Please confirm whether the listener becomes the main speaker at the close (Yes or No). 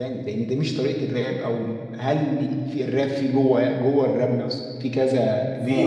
Yes